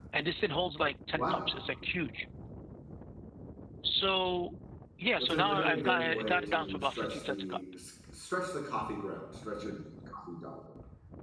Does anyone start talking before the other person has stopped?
Yes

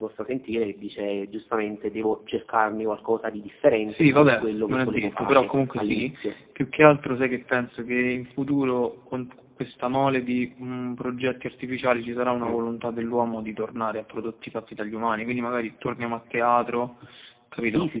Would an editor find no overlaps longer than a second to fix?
No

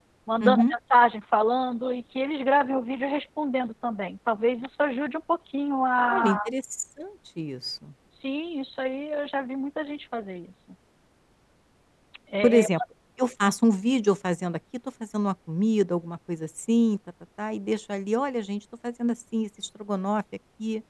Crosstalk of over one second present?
No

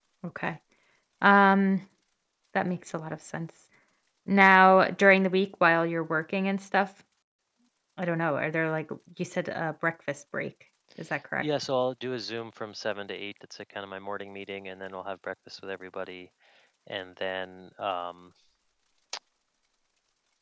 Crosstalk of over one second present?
No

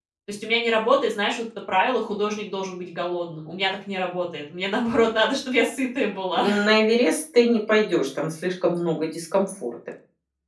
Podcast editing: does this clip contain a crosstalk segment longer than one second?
No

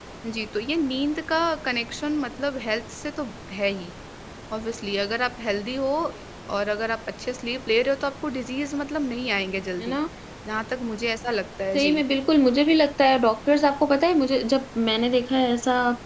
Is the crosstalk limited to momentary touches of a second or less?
Yes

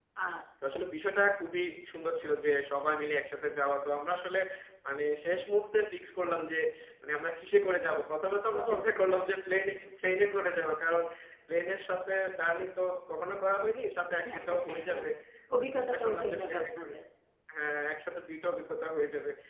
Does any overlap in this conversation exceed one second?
Yes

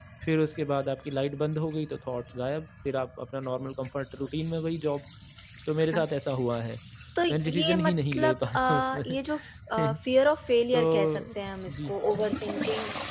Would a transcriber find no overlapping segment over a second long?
No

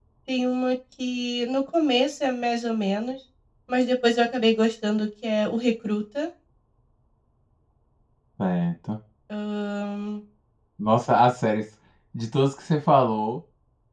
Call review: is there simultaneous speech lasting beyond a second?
No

